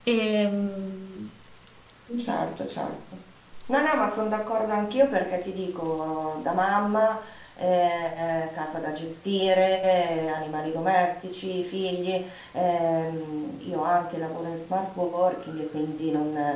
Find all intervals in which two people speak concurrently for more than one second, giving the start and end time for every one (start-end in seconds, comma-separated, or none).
none